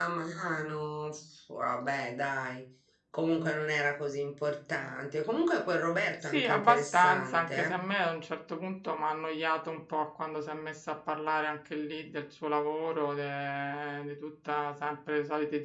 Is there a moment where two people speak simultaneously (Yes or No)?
Yes